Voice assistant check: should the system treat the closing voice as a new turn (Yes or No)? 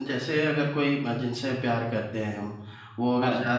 No